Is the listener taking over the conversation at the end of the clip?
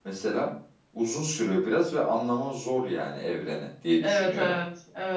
Yes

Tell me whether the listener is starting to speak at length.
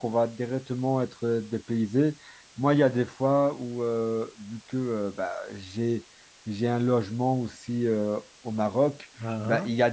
No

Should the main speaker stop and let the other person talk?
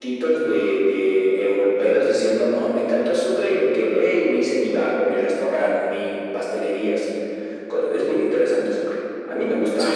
Yes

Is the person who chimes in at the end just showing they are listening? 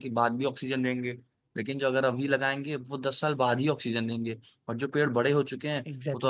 Yes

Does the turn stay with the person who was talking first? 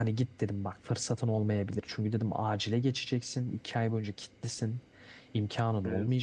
Yes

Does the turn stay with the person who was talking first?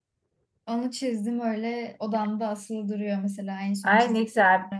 No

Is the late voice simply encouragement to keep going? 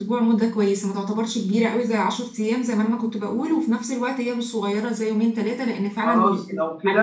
No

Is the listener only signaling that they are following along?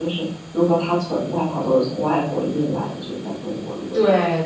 No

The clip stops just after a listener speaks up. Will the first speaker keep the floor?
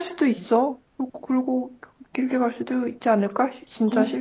No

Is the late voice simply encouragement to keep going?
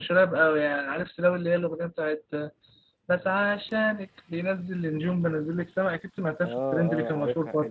No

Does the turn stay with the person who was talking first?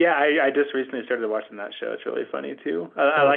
Yes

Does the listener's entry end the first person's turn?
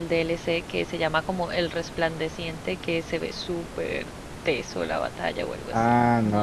Yes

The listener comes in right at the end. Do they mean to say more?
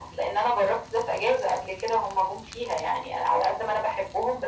No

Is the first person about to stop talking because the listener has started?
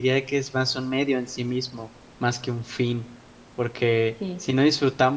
No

